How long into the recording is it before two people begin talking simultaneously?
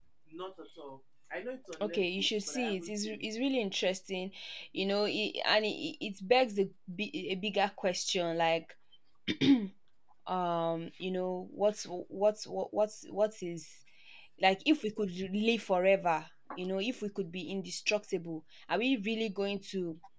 1.7 s

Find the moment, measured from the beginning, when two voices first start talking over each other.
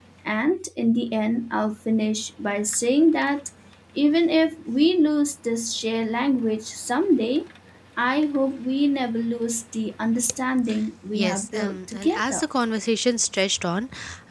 11.1 s

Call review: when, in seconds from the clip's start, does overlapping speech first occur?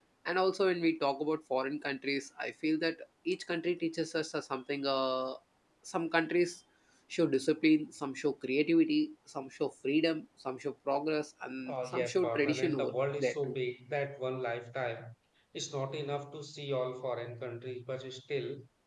11.7 s

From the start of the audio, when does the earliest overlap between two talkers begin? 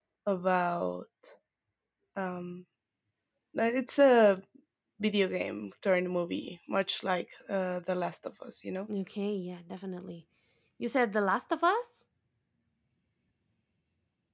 none

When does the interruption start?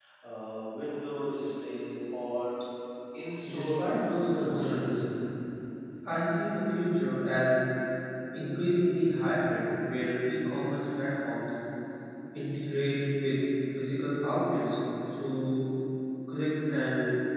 3.5 s

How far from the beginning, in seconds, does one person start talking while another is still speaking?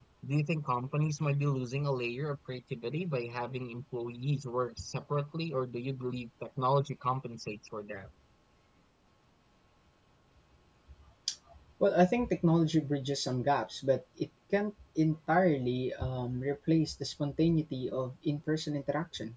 none

